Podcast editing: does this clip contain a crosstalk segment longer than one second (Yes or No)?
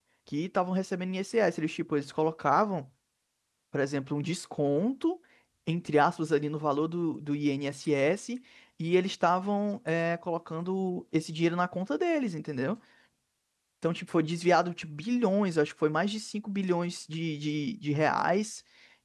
No